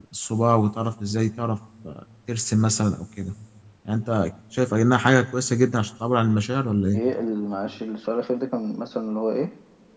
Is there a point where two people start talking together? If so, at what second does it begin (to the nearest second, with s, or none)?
none